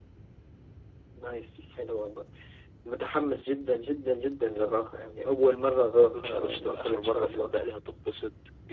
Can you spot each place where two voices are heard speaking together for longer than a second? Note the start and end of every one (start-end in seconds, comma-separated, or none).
6.1-7.5